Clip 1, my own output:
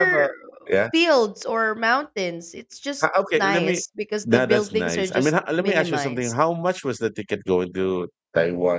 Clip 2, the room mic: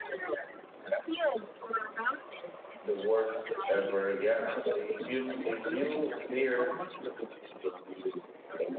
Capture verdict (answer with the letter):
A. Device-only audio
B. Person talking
B